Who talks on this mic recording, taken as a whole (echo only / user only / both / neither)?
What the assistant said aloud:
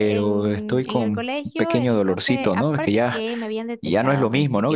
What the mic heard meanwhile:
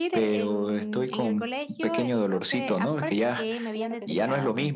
both